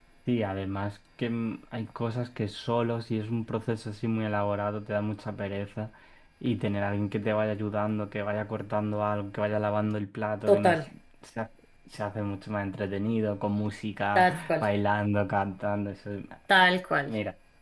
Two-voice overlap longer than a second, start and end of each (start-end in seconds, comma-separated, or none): none